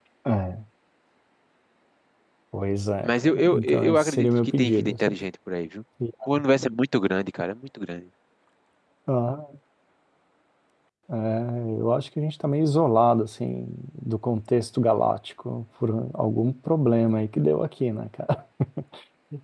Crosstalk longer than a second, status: present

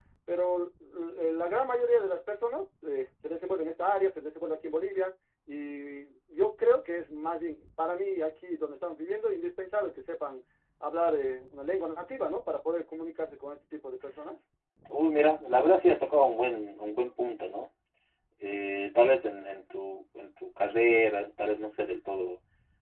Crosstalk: none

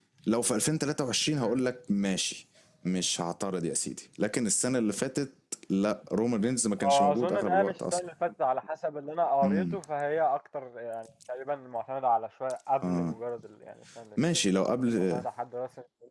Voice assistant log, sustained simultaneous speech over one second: present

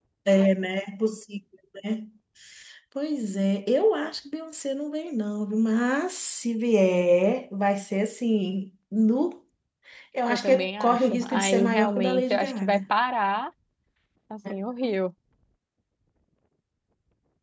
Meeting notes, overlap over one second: present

